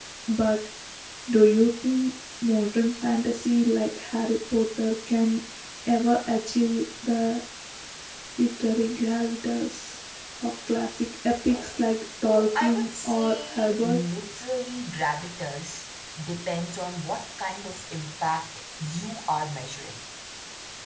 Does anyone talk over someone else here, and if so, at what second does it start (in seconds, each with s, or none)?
12.6 s